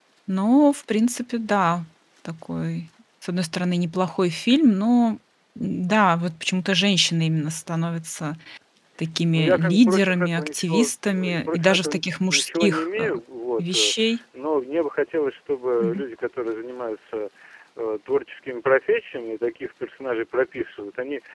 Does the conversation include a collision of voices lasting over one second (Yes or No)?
Yes